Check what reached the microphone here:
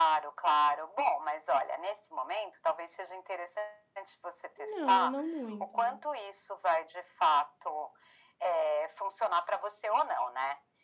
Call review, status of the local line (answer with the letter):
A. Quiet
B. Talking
B